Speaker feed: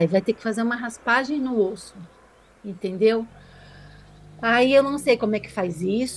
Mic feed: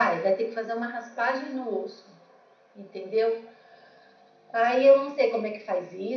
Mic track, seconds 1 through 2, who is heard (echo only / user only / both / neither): echo only